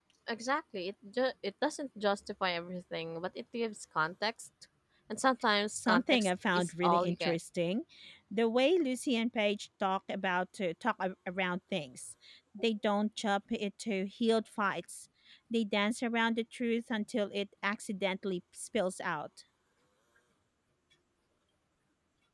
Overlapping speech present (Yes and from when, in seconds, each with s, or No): Yes, from 5.7 s